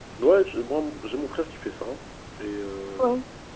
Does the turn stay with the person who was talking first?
Yes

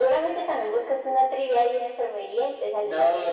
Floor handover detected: Yes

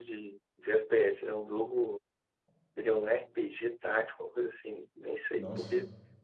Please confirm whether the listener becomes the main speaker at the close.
No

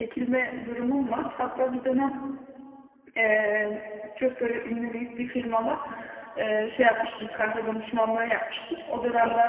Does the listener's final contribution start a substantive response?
No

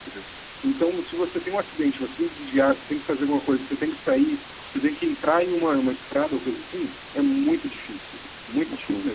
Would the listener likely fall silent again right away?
Yes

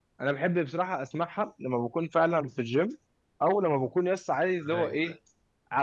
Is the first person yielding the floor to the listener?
No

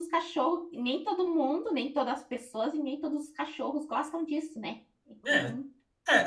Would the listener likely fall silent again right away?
No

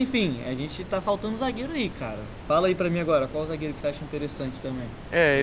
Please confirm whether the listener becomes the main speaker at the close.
Yes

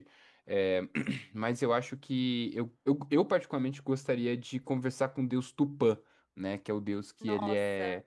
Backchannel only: Yes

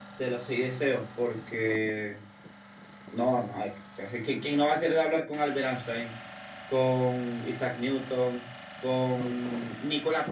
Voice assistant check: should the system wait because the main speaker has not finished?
Yes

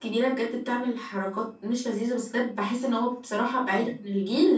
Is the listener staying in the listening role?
Yes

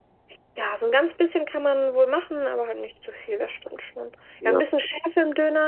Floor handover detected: No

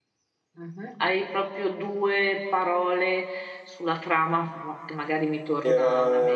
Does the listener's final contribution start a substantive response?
Yes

